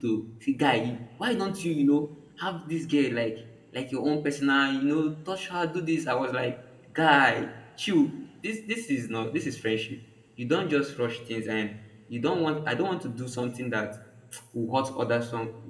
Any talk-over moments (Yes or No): No